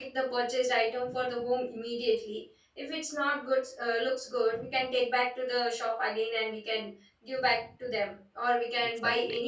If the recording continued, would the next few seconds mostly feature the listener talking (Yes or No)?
No